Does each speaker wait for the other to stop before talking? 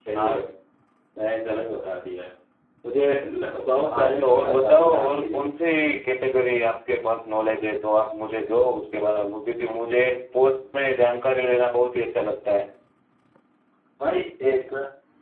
No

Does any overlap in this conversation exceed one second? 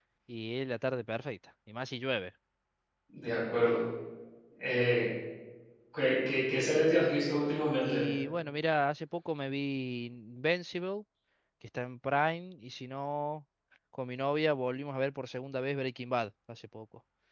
No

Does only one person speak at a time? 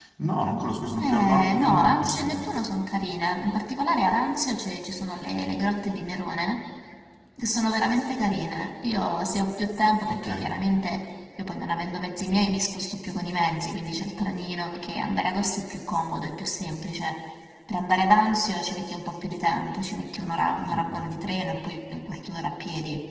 No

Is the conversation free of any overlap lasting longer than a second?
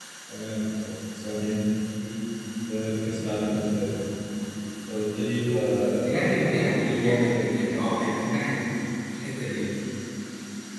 No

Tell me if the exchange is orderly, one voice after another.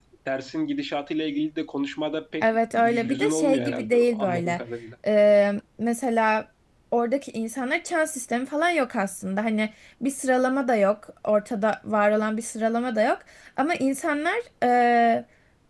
No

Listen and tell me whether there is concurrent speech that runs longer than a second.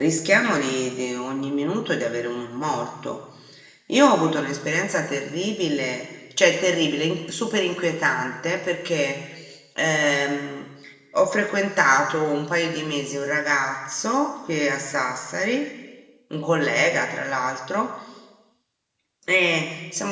No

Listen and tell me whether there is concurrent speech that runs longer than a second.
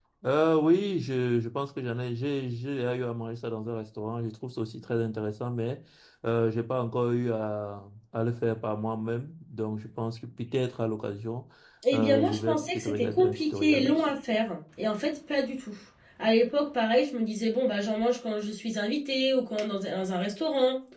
Yes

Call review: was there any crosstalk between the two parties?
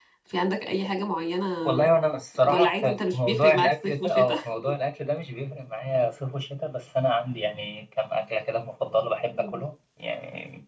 Yes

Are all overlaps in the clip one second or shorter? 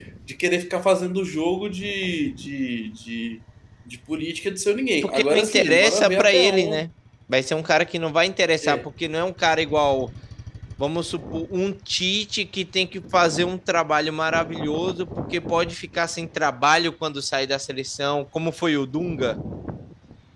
No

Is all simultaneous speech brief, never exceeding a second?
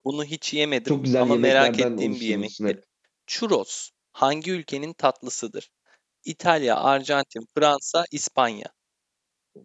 No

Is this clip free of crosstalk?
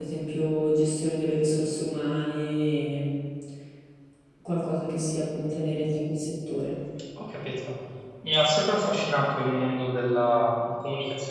Yes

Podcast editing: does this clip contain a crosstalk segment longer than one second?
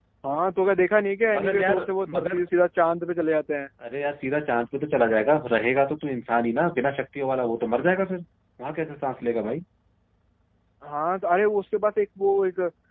No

